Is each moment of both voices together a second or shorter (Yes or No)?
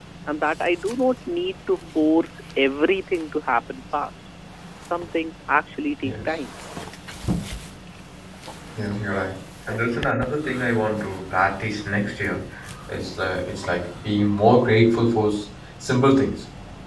Yes